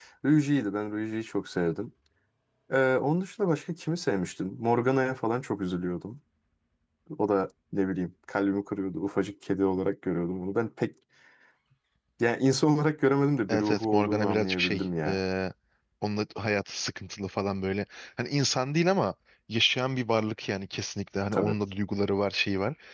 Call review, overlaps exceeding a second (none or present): present